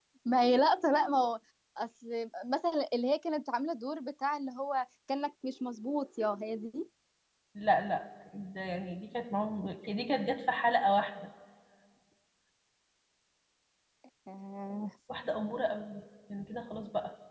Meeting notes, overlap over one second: none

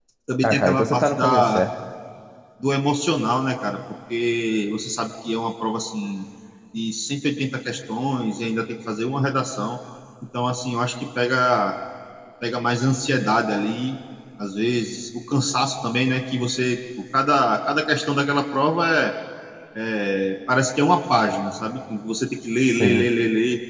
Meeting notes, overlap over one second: present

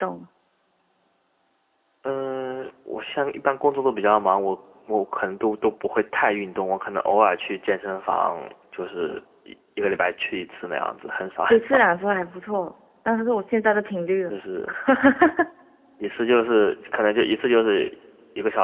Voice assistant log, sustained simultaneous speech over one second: none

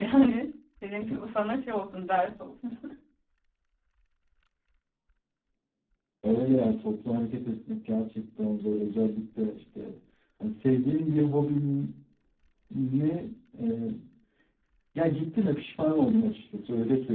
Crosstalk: none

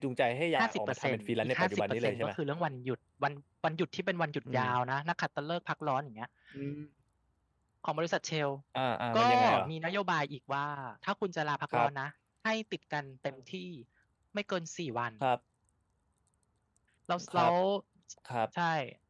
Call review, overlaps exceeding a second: present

